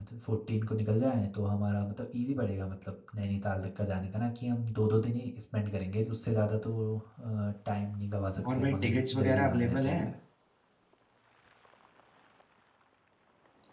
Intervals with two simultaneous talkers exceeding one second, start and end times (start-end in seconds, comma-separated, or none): 8.5-10.0